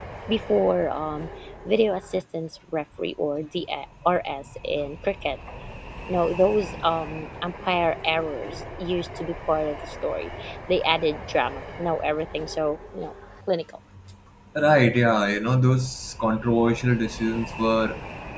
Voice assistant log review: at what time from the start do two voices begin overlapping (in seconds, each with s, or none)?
none